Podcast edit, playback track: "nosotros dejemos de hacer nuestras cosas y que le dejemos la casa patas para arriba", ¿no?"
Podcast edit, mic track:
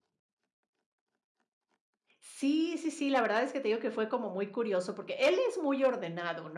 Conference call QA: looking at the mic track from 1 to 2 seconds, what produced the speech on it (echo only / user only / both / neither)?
neither